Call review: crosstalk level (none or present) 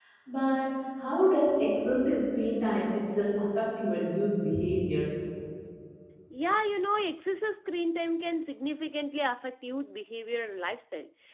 none